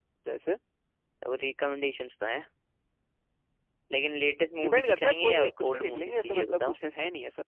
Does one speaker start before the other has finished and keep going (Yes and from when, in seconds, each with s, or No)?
Yes, from 4.6 s